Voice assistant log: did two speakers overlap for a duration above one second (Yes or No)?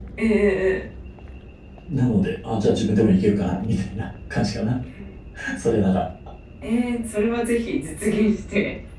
No